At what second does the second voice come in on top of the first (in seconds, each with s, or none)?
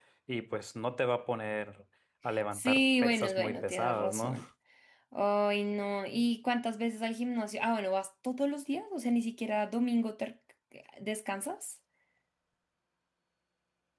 2.5 s